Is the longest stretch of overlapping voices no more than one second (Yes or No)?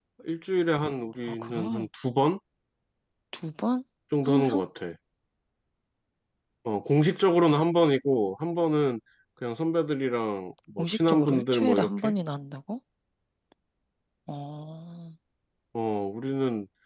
No